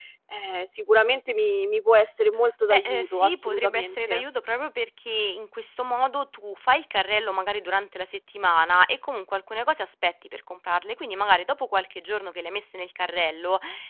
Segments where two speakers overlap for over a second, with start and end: 2.7-4.2

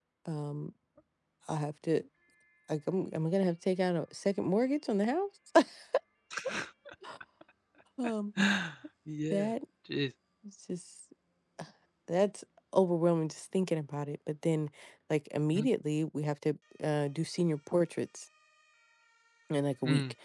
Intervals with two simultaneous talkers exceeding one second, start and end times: none

